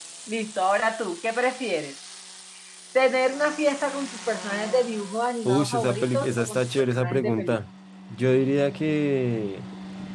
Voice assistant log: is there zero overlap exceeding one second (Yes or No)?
No